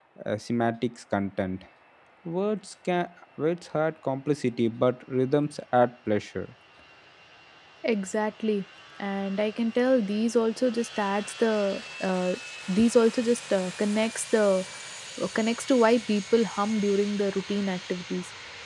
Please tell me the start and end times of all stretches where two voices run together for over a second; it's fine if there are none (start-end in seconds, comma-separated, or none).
none